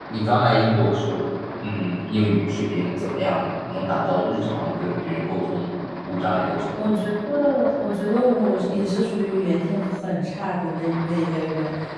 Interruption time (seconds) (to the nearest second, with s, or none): none